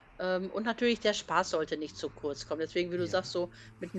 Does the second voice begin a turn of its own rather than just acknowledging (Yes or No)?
No